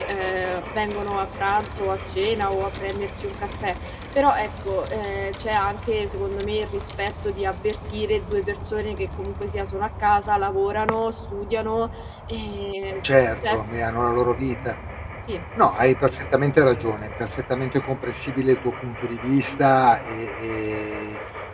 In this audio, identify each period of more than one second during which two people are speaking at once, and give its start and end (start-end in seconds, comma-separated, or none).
none